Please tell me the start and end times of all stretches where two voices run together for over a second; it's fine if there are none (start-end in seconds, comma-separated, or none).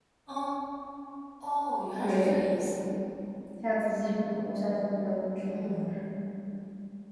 none